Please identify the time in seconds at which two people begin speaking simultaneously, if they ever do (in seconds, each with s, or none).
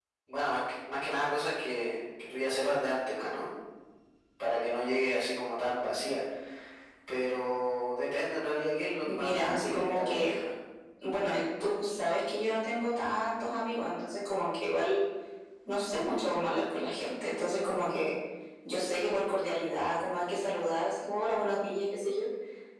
9.0 s